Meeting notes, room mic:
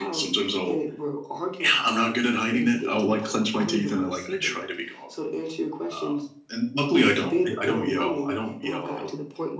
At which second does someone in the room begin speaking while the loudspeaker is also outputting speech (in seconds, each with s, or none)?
none